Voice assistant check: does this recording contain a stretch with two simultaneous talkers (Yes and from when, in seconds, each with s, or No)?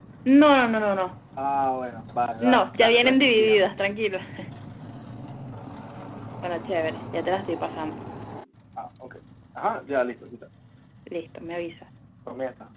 Yes, from 2.4 s